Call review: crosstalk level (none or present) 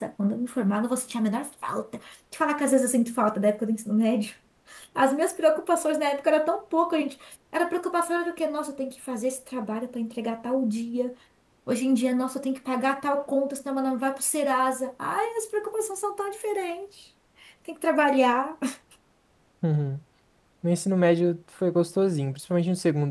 none